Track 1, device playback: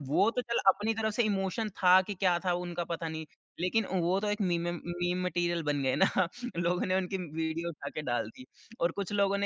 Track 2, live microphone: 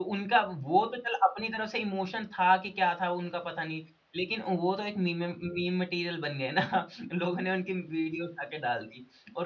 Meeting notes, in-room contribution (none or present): none